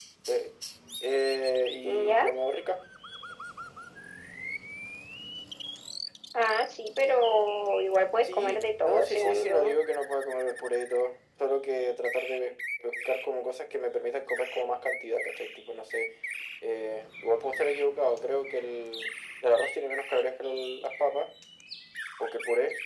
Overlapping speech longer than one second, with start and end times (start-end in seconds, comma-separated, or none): 8.2-9.8